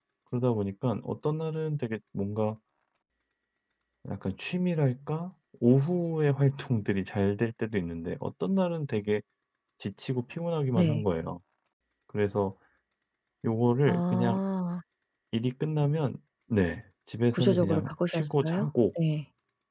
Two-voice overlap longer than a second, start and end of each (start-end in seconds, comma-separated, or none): 17.3-18.7